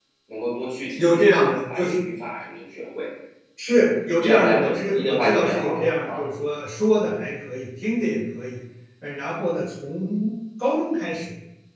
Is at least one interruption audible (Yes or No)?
Yes